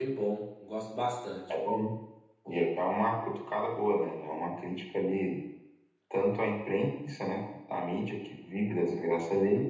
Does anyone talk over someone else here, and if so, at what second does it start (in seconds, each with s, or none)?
none